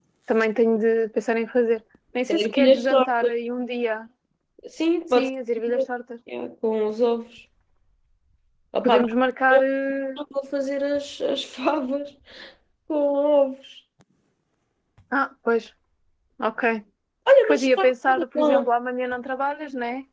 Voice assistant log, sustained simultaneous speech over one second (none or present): present